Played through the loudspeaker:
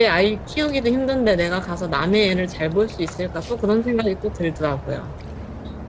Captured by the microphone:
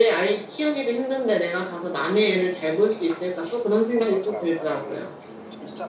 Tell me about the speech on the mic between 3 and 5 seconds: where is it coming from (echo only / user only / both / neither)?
both